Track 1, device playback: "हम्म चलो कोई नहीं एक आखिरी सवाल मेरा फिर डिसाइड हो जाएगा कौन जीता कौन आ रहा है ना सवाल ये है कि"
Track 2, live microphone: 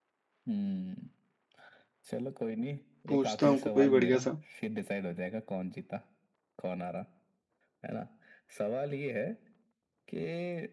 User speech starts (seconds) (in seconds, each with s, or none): 3.1 s